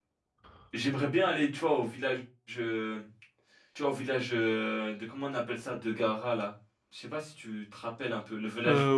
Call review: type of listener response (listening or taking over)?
taking over